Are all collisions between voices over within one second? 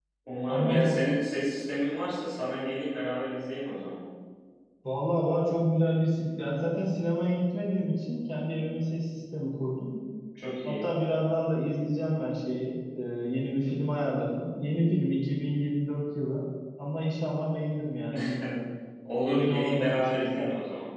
No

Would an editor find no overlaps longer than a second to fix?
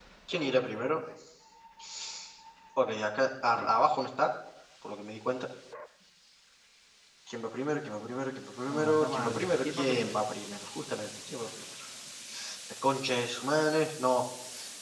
No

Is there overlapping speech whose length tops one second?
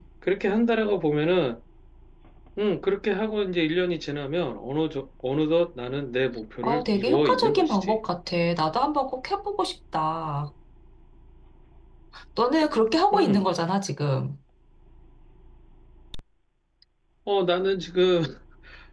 Yes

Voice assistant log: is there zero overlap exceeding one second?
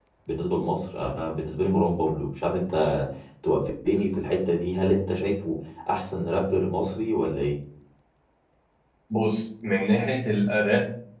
Yes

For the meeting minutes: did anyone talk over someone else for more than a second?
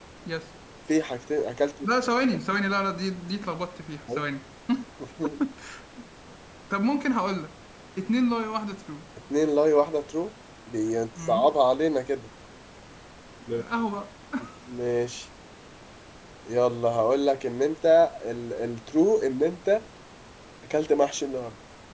No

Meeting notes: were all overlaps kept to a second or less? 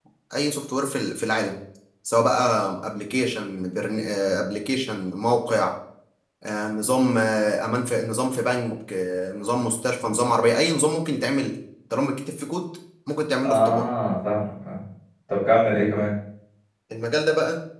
Yes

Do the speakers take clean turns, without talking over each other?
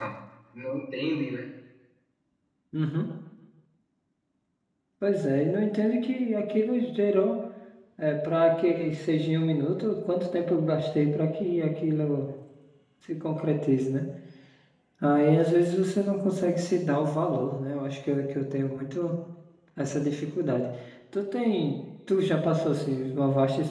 Yes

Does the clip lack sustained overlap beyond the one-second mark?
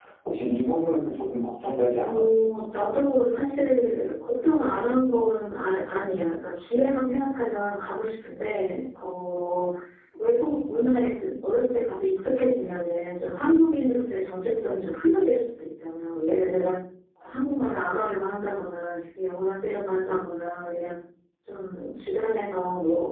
Yes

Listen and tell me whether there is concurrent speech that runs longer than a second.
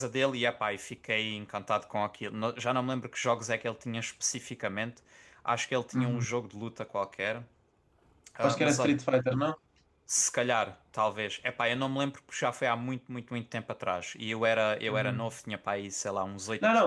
No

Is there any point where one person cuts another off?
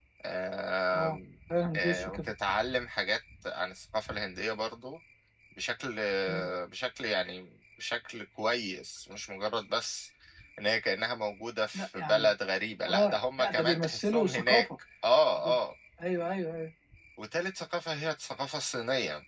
Yes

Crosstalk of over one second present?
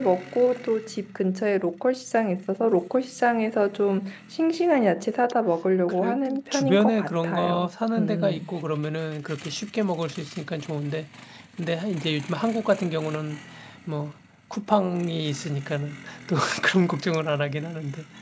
Yes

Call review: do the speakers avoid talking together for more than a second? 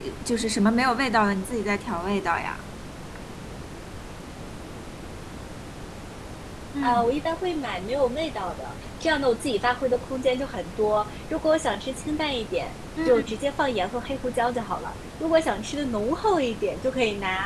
Yes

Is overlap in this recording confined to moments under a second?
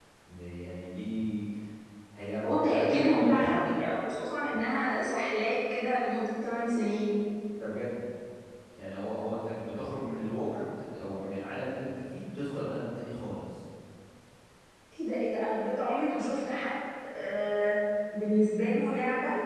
No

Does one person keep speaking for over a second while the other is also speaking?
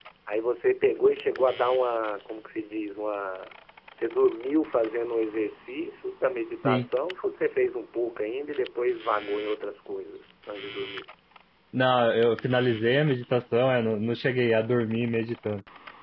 No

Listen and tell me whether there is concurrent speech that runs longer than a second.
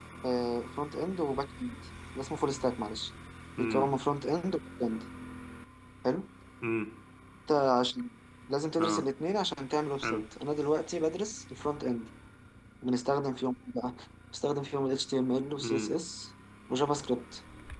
No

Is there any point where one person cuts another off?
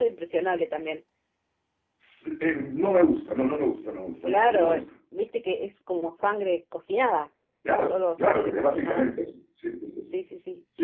Yes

